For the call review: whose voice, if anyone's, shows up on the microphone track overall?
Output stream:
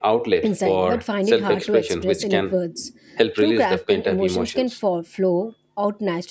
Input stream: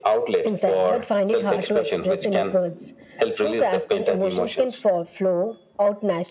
echo only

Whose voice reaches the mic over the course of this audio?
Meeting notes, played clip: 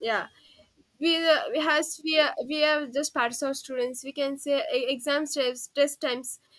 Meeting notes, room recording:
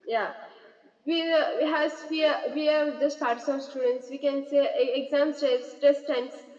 echo only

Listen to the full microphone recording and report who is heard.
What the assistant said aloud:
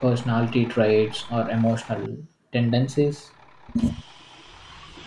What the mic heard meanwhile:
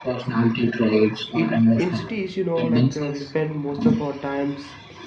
both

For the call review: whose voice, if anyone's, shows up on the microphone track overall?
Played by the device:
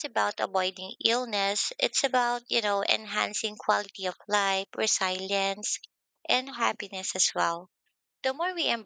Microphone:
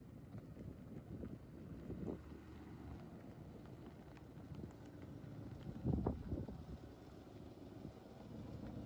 neither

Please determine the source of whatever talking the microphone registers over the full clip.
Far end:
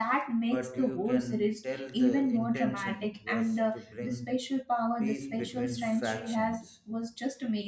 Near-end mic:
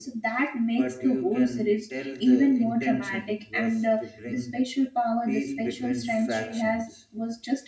echo only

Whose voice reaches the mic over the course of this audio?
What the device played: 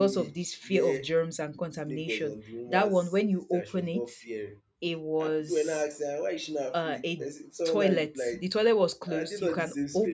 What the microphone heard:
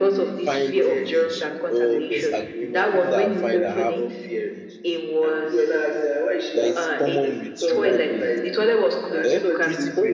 both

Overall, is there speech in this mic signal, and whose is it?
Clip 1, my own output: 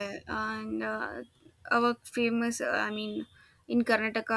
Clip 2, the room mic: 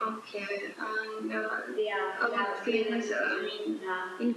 both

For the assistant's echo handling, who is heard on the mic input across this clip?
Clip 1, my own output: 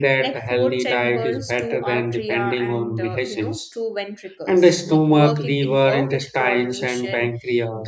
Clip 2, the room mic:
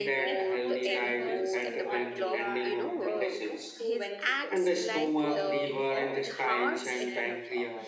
both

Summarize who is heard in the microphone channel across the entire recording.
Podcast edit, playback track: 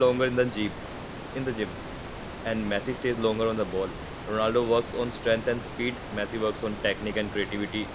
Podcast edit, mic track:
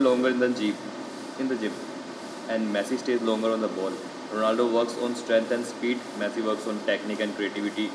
echo only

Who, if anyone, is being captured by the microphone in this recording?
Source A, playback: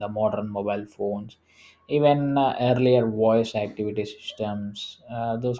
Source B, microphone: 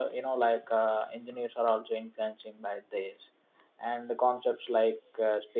user only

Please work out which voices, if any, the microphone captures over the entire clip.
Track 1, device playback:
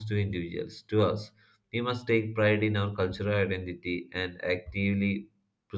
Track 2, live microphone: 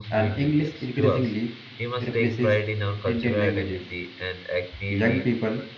both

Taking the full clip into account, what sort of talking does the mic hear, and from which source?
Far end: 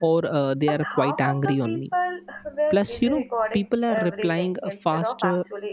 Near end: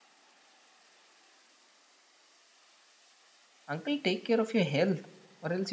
user only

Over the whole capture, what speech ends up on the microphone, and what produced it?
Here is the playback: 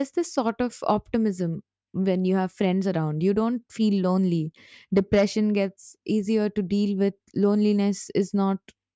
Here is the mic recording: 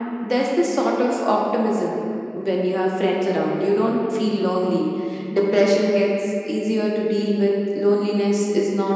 echo only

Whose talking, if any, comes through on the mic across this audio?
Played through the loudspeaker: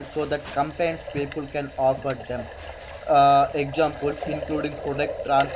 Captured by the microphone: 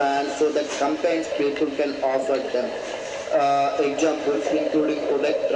echo only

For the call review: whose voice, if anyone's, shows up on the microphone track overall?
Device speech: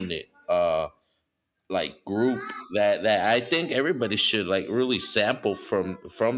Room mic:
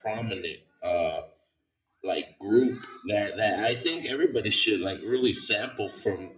echo only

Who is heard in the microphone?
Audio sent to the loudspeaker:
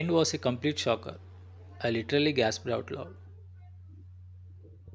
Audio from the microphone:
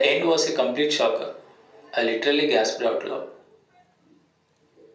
echo only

